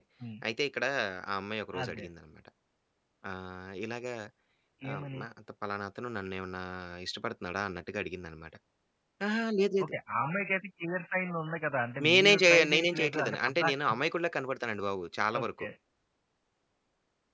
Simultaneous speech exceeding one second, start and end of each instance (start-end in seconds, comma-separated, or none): 12.0-13.7